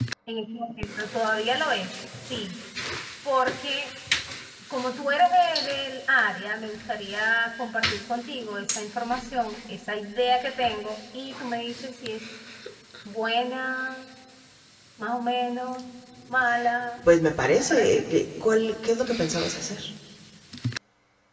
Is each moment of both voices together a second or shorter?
Yes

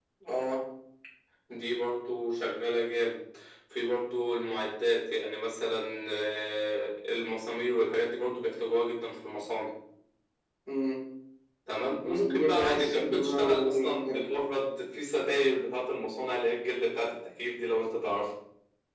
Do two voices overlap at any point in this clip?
Yes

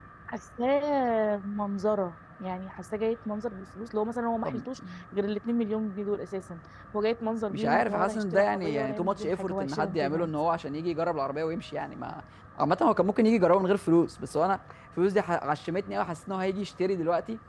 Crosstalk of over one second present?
Yes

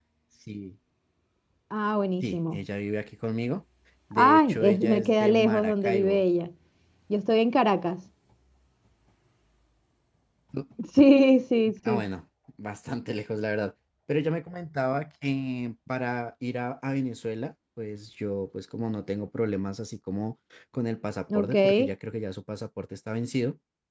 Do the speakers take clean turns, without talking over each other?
No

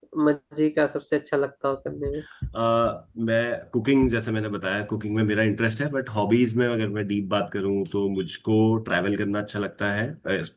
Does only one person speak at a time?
Yes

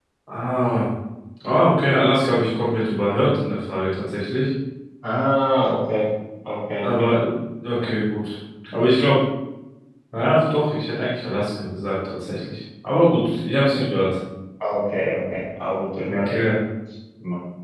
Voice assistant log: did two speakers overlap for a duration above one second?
No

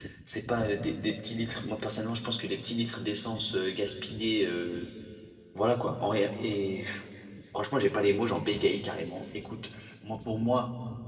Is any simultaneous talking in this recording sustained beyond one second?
No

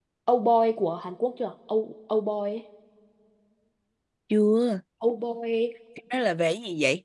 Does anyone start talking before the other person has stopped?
No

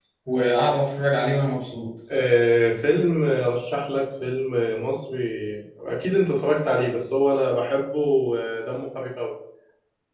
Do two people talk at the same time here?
No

